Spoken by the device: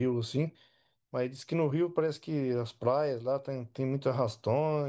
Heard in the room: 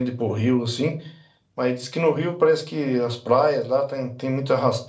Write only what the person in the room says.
none

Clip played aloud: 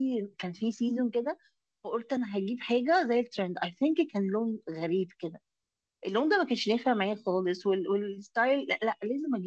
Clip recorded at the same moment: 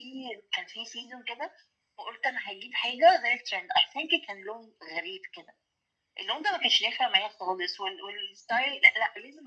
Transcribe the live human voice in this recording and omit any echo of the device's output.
none

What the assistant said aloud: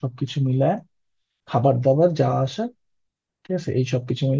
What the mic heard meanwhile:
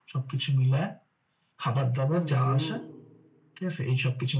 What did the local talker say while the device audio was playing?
হুম হুম

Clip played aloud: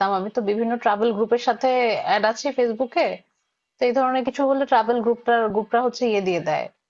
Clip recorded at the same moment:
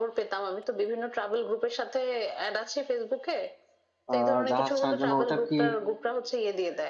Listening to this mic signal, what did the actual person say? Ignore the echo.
আহ জাহাজ ছাড়ার জন্য ওটা কি

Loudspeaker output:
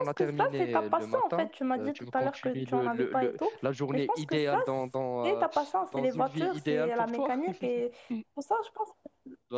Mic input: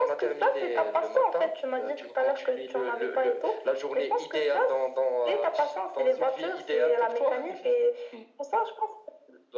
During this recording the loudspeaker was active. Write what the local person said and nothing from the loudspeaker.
none

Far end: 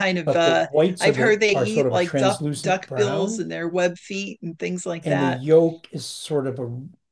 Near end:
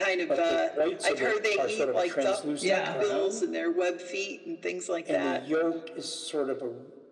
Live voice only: yeah.

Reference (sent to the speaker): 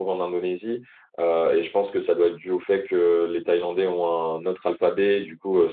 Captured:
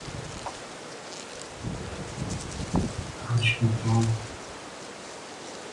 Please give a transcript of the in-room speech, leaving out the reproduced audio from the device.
Ah, je comprends.

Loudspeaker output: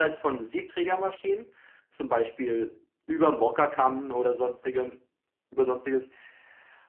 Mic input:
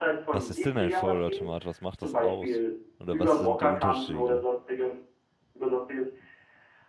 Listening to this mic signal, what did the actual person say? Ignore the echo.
Was ist denn ein Vollautomat? Was macht das aus? Oder was sind die Unterschiede?

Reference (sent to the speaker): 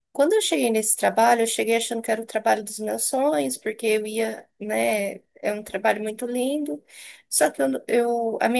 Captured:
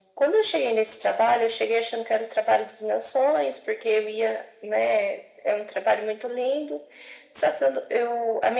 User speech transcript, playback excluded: none

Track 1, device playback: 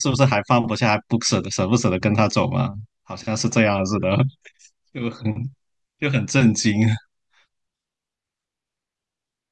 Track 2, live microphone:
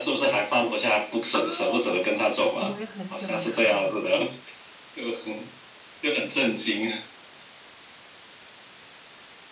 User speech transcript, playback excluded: 啊，我也很喜欢看，

